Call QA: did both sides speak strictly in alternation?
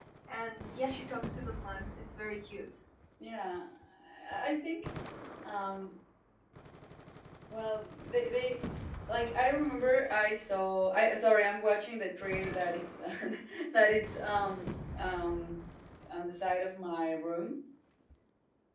Yes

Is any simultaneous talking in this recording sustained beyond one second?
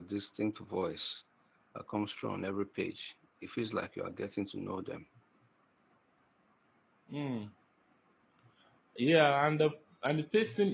No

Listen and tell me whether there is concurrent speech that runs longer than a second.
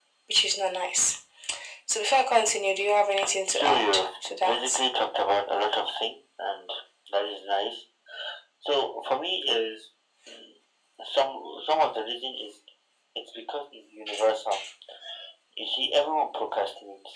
Yes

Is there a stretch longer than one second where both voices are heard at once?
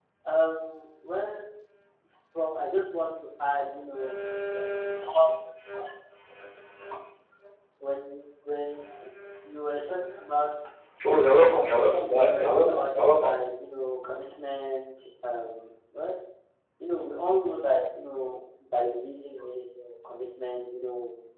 Yes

